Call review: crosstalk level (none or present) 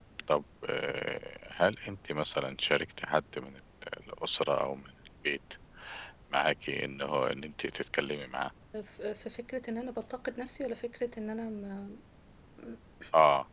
none